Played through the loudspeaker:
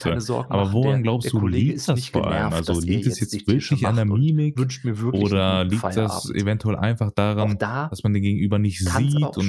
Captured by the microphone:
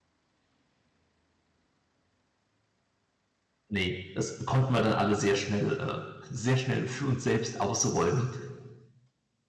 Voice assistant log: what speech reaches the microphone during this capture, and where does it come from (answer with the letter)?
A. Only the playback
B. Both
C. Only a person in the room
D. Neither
C